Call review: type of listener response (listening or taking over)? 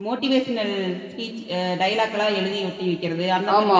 taking over